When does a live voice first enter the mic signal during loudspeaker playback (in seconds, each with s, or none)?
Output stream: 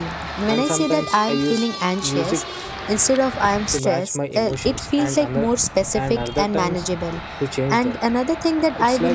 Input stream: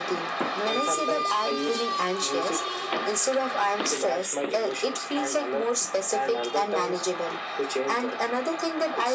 none